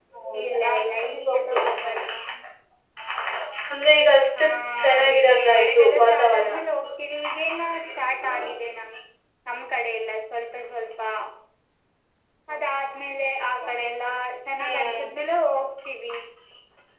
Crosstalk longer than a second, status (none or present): present